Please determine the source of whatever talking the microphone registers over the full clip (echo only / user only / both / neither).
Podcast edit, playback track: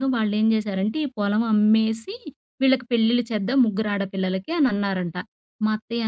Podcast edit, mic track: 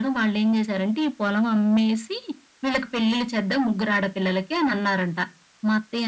echo only